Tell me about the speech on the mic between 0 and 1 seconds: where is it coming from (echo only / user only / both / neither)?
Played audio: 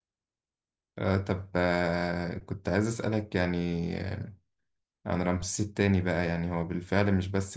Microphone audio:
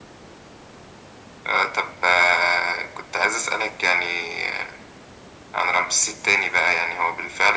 neither